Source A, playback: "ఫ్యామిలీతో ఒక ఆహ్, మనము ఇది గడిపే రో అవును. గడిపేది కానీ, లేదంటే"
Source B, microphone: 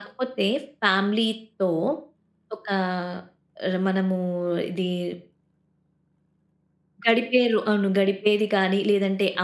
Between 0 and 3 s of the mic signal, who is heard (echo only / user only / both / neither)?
echo only